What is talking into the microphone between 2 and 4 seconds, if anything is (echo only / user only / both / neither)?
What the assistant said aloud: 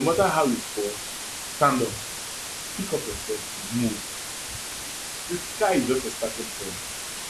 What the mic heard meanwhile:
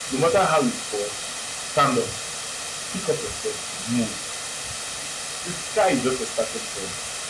echo only